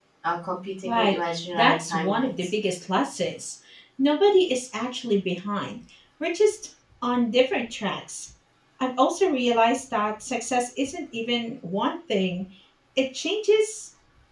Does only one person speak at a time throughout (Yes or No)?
No